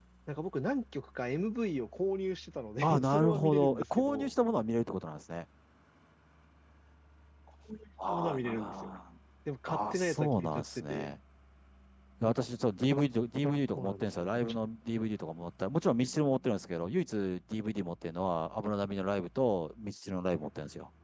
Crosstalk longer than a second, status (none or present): present